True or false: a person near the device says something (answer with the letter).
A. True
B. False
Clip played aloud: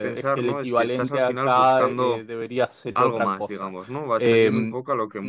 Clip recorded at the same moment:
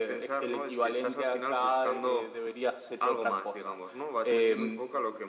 B